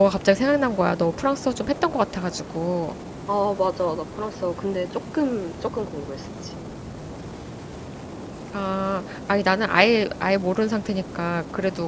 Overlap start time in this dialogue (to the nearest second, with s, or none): none